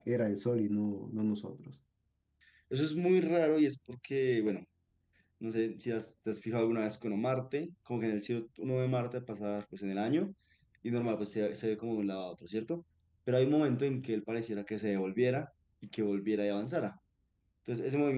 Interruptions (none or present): none